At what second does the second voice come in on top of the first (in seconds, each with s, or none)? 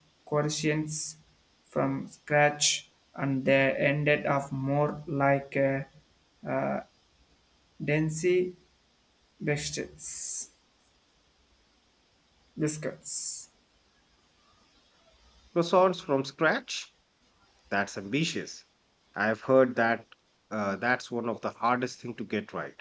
none